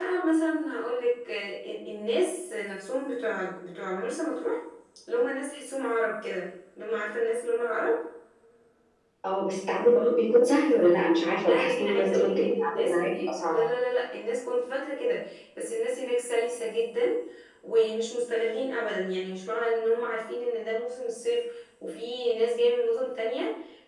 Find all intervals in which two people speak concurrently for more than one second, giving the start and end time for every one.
11.5-13.6

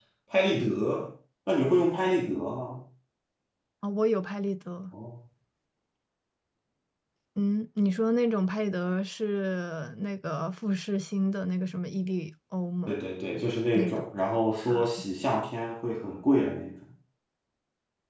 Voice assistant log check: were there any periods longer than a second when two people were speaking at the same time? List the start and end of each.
none

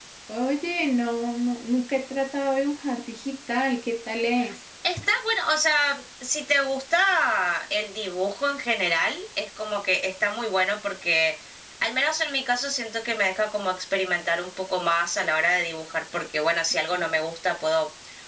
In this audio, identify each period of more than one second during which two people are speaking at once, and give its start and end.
none

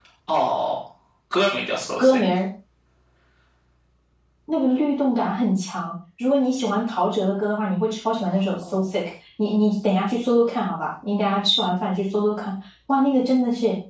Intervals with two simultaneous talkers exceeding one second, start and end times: none

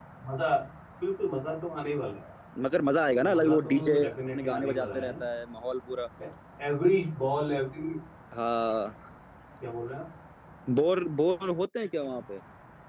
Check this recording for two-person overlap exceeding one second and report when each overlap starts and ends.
3.1-5.1

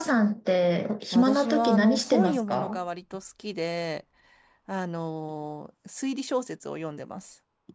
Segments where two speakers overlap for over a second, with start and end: 1.1-2.8

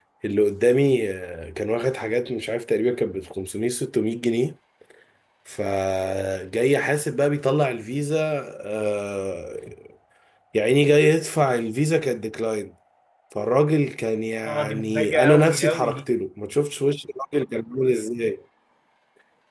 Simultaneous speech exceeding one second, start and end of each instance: 14.4-16.0

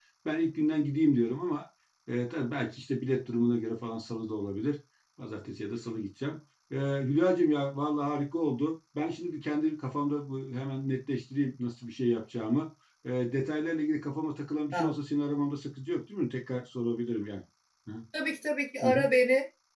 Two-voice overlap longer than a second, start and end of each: none

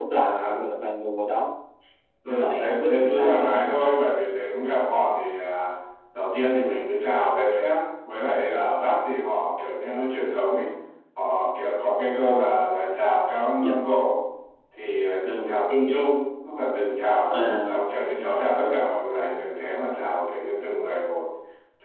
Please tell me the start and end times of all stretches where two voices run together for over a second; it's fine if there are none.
2.2-3.5

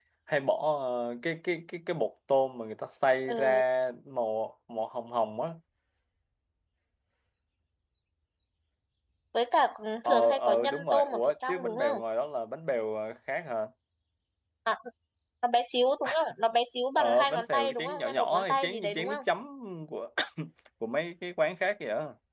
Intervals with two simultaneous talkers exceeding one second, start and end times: 10.1-12.0, 17.0-19.2

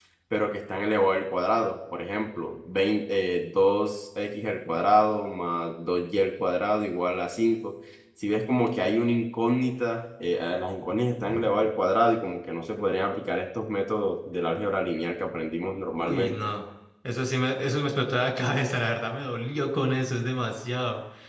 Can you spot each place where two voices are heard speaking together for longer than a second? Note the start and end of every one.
none

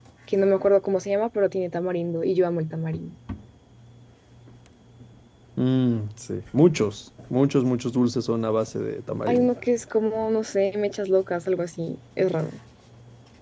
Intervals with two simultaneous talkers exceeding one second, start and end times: none

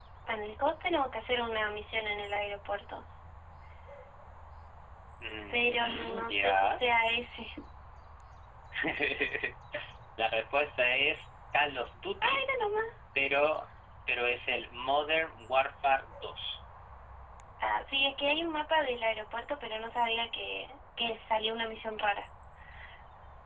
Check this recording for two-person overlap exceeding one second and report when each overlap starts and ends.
5.5-6.8

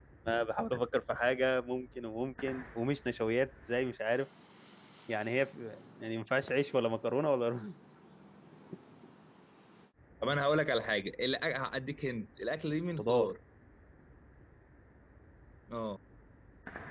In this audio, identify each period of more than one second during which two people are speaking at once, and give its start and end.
none

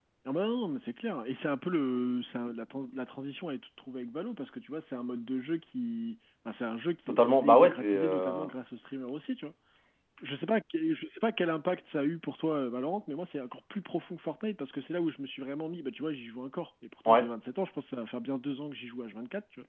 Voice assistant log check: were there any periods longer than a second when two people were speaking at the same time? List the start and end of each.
7.1-8.4

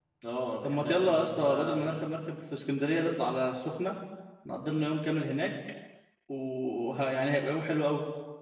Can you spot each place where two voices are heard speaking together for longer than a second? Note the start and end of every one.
0.6-2.0

